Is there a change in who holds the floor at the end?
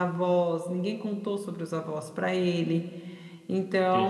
No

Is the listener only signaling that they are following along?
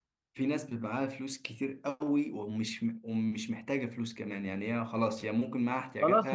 No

